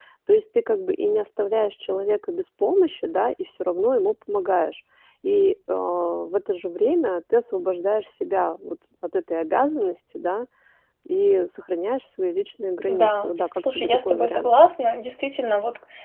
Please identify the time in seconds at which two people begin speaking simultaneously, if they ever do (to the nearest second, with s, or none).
13 s